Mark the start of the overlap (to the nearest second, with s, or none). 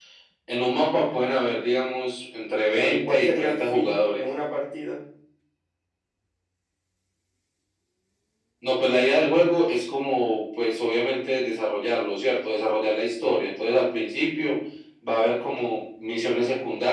3 s